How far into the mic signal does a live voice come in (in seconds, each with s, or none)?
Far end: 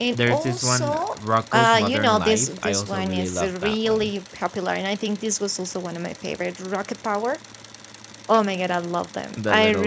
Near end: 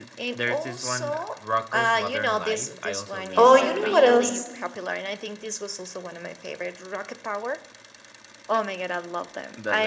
3.3 s